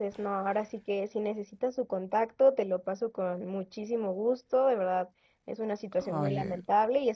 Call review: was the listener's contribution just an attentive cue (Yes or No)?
Yes